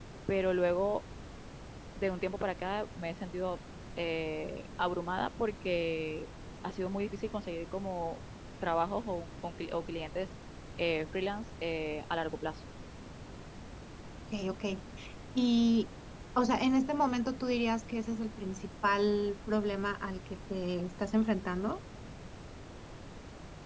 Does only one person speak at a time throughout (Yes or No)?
Yes